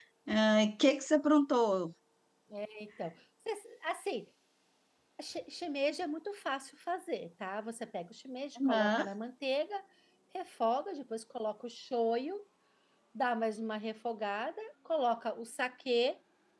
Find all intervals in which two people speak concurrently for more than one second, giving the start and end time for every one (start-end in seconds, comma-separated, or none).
none